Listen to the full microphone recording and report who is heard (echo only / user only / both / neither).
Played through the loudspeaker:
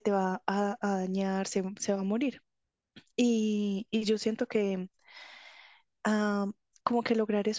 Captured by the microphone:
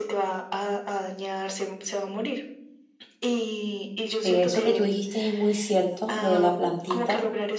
both